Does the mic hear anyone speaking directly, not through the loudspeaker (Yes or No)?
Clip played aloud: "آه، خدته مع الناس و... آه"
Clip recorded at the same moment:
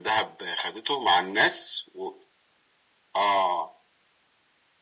No